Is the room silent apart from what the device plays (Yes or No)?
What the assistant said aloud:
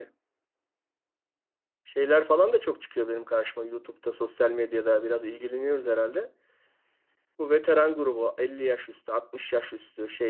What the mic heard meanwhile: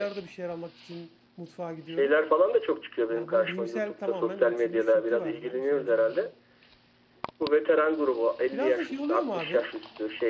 No